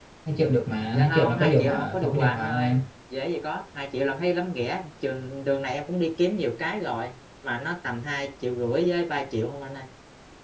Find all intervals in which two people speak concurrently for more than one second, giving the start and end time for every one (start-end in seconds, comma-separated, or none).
0.9-2.8